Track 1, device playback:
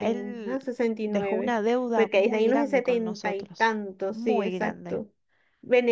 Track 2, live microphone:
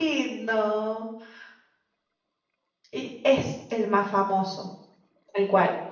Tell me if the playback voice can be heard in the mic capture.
No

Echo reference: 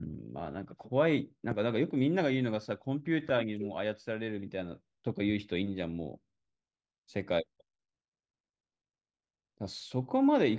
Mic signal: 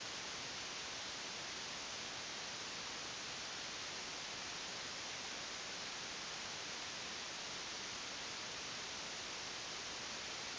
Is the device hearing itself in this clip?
No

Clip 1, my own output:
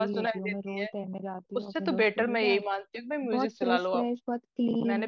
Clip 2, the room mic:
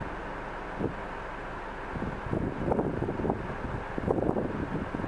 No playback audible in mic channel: Yes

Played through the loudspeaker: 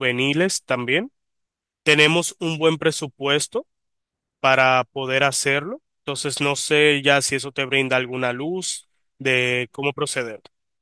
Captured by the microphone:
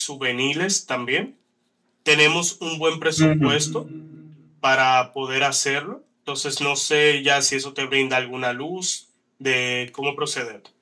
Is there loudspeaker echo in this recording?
Yes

